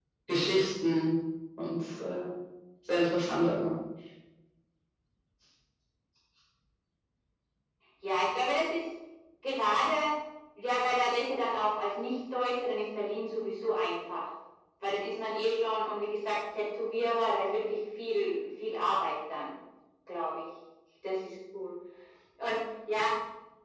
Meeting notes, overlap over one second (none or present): none